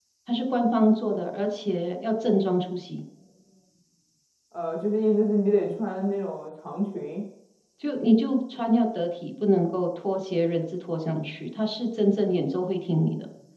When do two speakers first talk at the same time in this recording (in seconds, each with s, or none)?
none